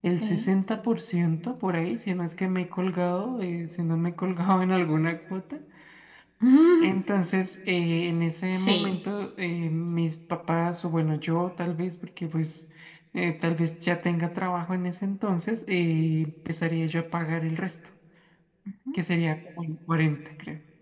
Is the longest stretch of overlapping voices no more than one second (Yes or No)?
Yes